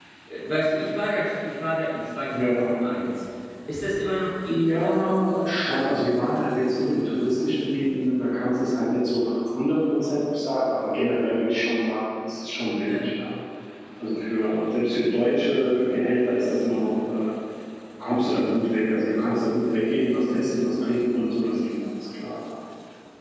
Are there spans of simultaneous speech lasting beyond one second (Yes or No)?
No